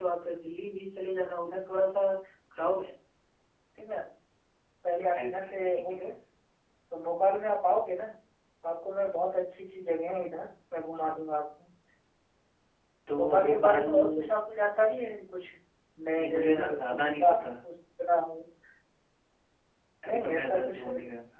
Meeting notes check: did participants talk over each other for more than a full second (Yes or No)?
Yes